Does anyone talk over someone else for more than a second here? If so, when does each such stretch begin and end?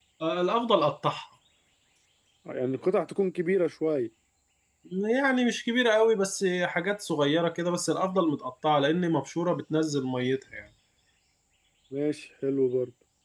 none

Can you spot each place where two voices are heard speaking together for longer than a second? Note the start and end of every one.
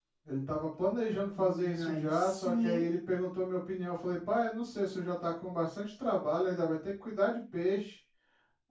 1.4-2.9

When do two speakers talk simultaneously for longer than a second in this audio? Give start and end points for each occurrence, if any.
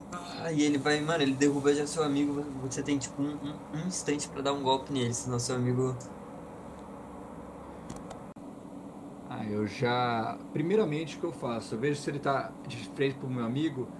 none

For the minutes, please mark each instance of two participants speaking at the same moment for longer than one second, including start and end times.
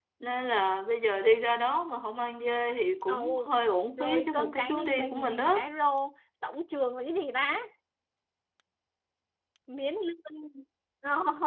4.0-5.7

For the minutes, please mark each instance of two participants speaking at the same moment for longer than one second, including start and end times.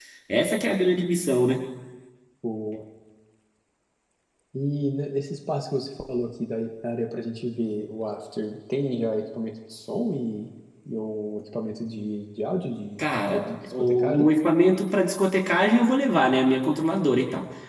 13.0-14.3

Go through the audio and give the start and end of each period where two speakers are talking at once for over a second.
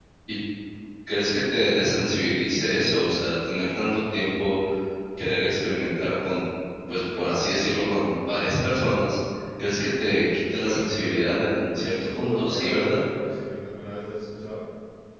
10.6-13.0

